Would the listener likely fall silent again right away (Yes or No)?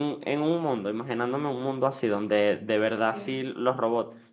Yes